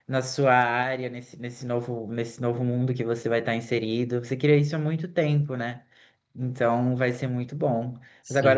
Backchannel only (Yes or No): Yes